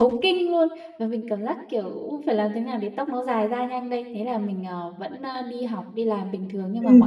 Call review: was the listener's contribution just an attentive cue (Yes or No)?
Yes